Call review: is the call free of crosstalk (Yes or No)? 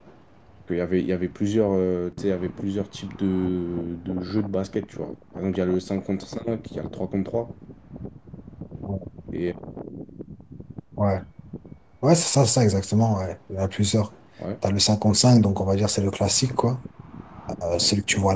Yes